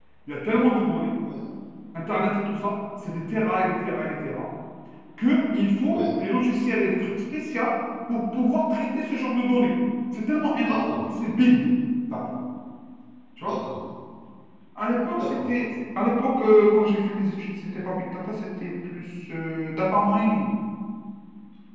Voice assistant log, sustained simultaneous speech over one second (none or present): none